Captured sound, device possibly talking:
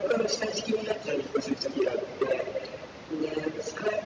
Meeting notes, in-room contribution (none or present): none